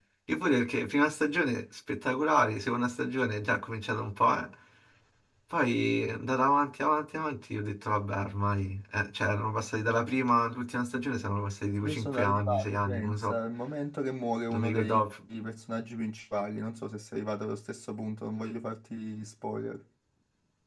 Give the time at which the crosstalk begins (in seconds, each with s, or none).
11.8 s